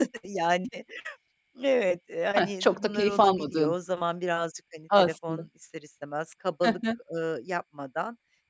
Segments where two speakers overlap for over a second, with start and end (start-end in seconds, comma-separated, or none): 2.4-3.8